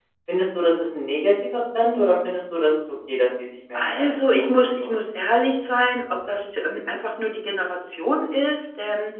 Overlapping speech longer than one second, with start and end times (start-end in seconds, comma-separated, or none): 3.7-5.0